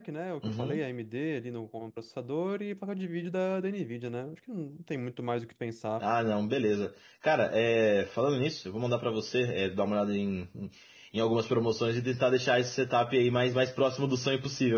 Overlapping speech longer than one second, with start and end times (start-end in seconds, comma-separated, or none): none